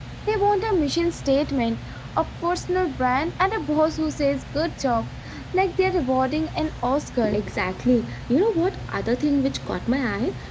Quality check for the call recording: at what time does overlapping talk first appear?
none

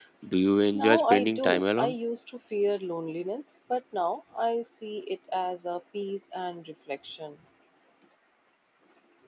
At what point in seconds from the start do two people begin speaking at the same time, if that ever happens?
0.7 s

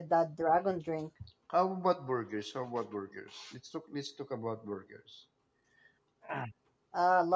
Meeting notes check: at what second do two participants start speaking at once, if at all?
none

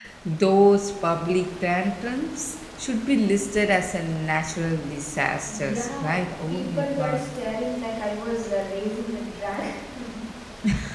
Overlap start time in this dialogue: 5.5 s

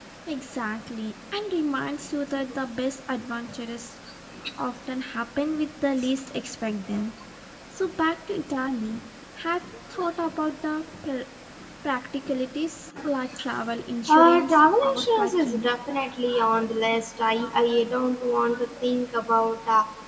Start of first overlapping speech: 14.1 s

